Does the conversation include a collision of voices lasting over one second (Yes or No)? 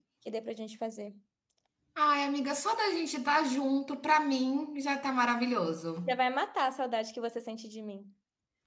No